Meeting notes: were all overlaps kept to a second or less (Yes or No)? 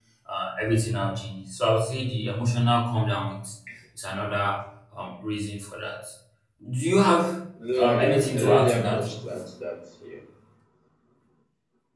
No